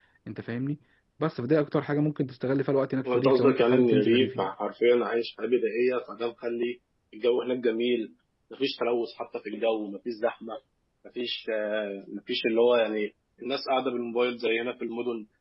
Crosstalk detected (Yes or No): Yes